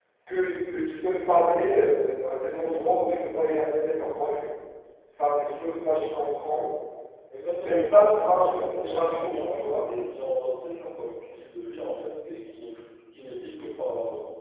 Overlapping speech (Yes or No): Yes